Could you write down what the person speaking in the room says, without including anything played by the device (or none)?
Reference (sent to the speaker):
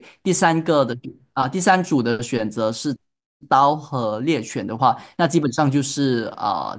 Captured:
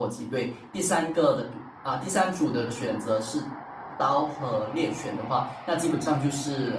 none